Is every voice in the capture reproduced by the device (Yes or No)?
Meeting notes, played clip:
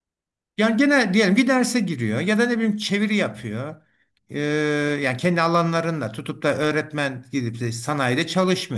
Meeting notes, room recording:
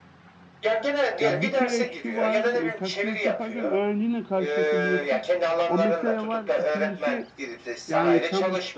No